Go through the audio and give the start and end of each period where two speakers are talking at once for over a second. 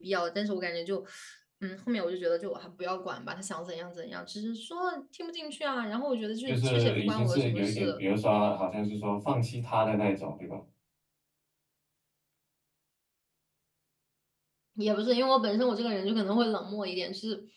6.5-8.0

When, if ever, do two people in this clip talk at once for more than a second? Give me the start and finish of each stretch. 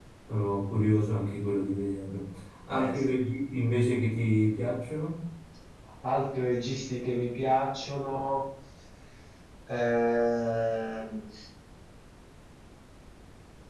none

